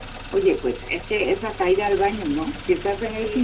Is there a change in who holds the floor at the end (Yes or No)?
No